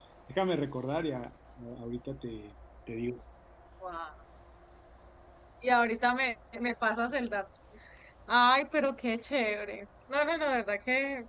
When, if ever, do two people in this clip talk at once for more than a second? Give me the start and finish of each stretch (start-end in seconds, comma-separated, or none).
none